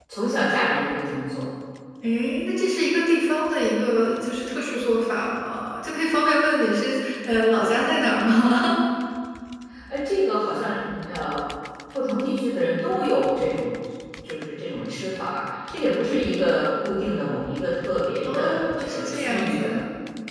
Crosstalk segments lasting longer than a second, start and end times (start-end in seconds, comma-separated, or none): 18.2-19.8